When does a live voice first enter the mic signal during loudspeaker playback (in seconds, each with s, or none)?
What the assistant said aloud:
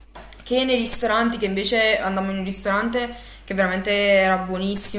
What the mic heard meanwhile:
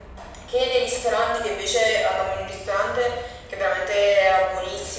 none